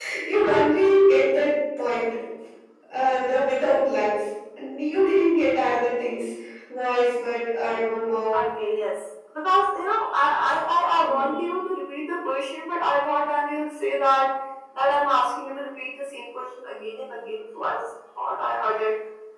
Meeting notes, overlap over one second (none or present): none